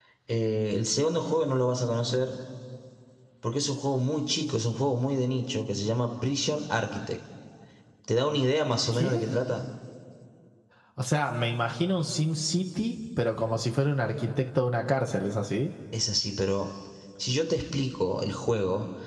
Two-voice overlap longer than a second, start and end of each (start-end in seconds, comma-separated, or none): none